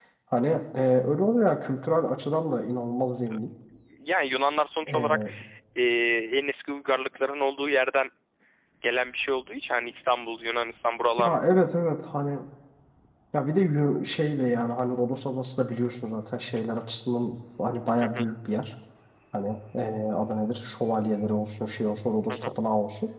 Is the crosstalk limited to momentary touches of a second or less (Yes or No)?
Yes